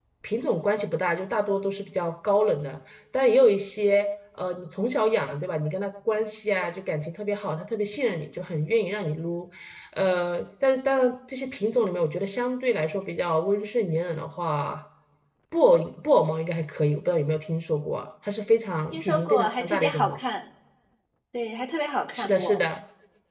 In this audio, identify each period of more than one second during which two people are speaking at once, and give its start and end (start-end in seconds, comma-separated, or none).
18.9-20.2